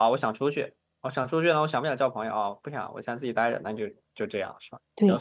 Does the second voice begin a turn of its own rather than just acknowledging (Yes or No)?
Yes